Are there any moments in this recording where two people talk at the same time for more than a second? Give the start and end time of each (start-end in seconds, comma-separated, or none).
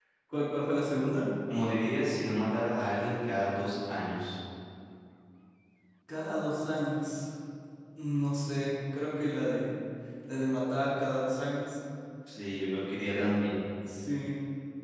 none